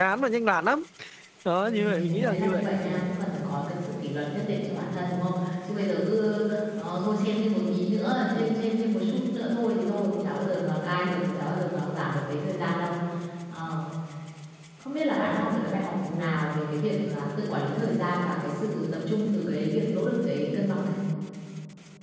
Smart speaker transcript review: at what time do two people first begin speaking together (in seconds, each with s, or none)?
1.6 s